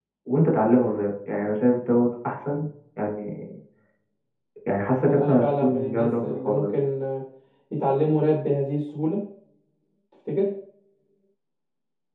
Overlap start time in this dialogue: 5 s

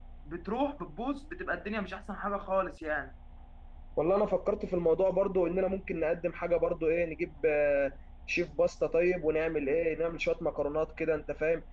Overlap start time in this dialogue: none

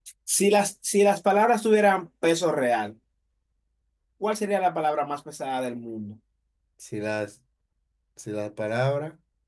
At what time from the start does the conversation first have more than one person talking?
none

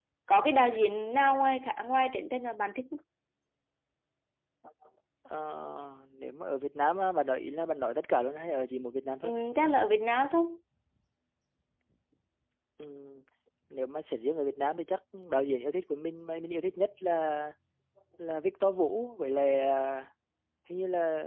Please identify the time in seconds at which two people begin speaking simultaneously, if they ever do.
none

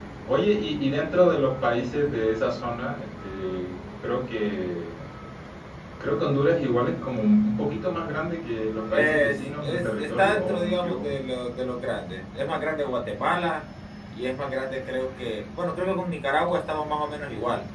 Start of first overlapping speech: 9 s

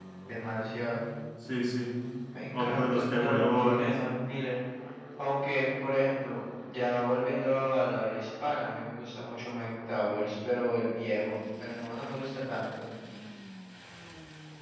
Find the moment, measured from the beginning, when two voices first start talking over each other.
3 s

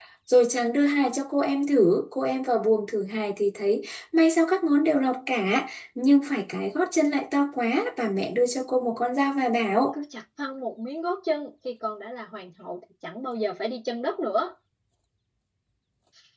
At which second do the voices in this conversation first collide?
none

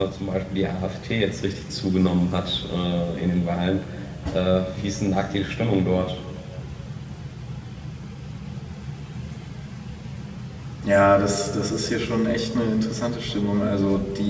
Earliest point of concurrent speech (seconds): none

